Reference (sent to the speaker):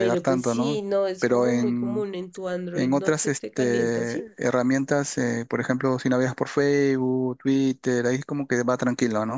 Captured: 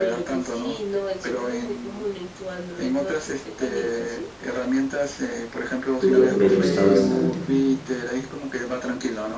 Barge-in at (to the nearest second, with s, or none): 6 s